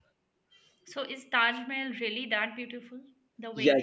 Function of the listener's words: taking over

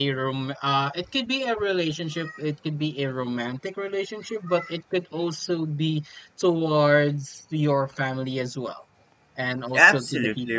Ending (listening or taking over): taking over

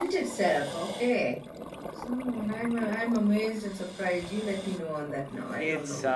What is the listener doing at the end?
taking over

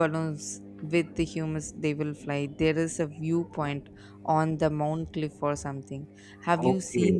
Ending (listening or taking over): taking over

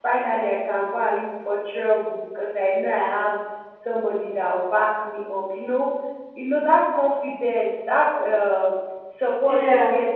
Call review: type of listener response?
listening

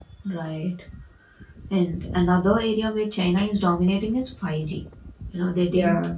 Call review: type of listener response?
listening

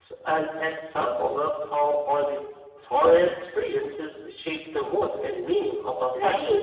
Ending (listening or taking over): taking over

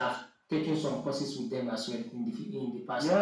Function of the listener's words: taking over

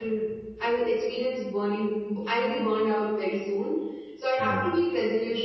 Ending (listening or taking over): listening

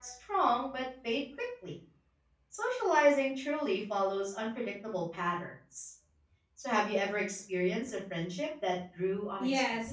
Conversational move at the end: taking over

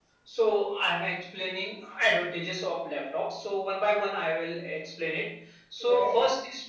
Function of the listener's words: listening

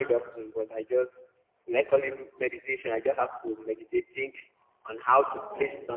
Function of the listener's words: listening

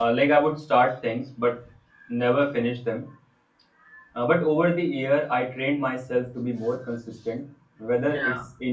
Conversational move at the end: listening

